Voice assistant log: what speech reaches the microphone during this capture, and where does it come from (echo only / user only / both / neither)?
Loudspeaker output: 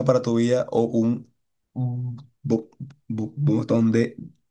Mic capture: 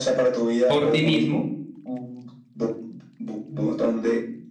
both